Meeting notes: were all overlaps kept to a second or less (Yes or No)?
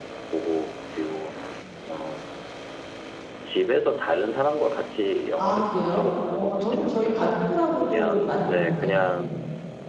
No